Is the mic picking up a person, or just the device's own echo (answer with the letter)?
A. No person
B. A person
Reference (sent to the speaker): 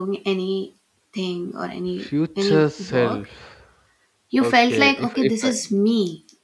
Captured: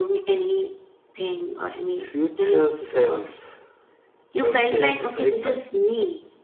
A